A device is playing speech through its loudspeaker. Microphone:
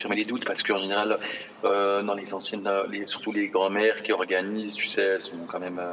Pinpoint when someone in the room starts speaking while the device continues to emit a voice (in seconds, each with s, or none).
none